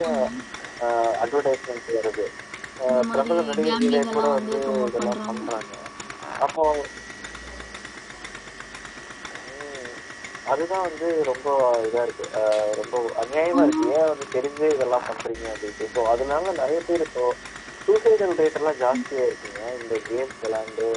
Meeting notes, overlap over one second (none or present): present